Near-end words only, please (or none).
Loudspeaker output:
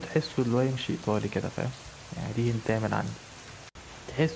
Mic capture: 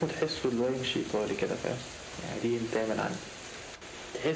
none